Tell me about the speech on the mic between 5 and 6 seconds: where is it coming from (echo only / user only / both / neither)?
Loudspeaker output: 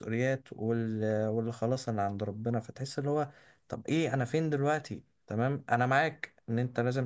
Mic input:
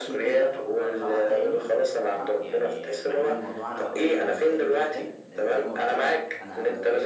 both